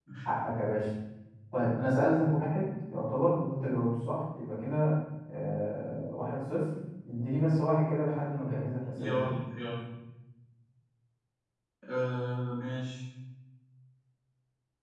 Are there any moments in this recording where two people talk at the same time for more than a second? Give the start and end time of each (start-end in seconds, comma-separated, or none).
none